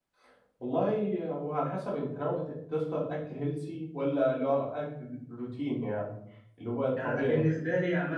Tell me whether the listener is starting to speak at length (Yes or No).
Yes